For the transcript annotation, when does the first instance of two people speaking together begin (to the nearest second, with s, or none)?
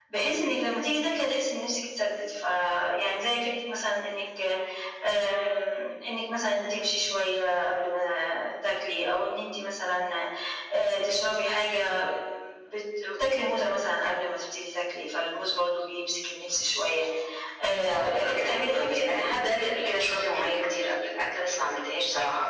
18 s